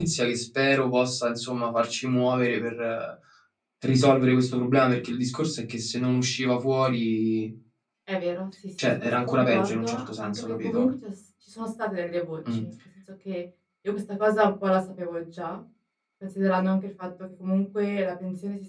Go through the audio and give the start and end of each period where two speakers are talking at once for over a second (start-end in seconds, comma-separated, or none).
9.0-10.9